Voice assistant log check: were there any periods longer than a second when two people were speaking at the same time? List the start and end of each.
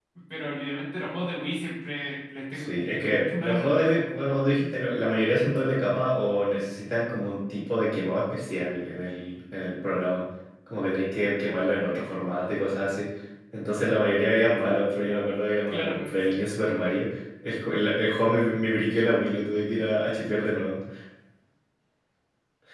2.5-4.0

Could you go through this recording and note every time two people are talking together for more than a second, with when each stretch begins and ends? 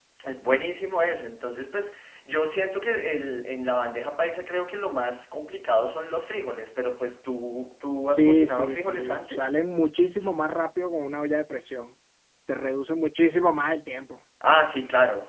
8.1-9.5

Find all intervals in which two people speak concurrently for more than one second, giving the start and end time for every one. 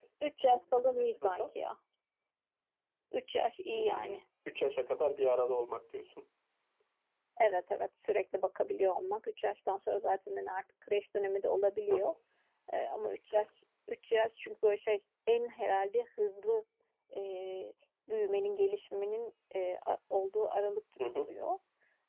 none

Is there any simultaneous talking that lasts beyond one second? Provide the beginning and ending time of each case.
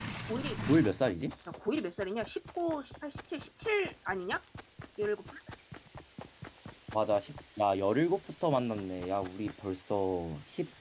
none

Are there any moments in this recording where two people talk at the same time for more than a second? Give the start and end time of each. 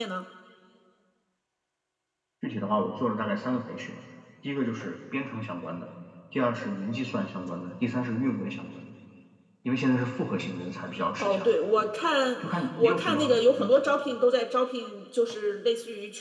12.4-13.7

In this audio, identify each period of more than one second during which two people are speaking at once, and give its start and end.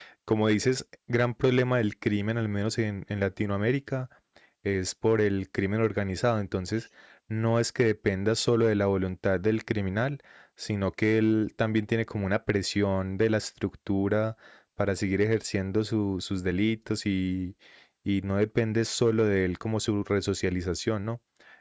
none

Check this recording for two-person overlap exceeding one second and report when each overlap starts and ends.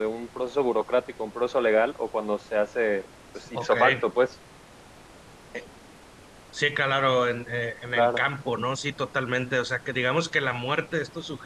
none

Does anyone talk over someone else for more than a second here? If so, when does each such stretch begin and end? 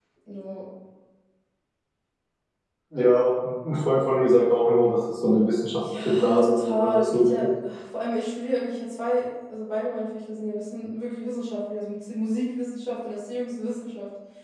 6.0-7.5

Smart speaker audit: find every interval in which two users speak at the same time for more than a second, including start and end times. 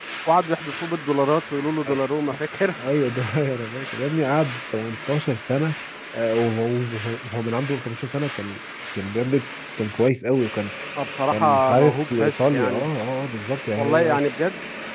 11.3-12.9

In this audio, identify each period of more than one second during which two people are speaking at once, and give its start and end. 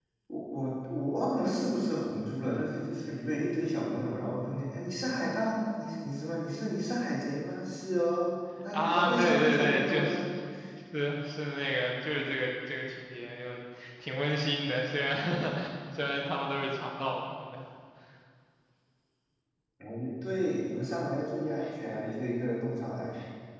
8.7-10.2

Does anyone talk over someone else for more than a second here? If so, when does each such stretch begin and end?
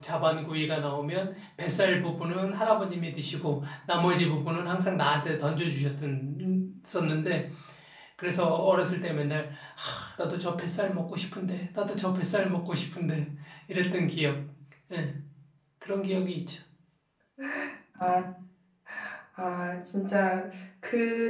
none

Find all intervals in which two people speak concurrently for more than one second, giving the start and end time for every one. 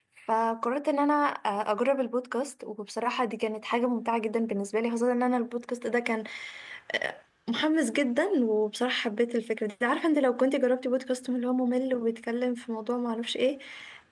none

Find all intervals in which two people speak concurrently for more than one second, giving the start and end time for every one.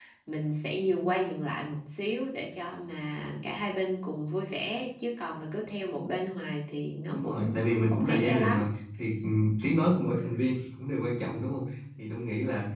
7.1-8.6

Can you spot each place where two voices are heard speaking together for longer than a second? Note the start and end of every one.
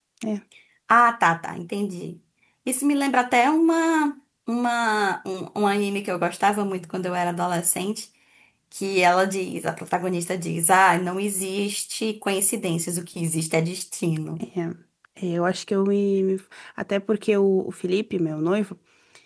none

